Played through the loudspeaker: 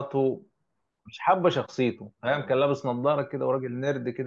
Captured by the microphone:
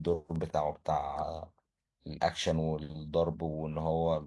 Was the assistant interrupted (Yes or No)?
Yes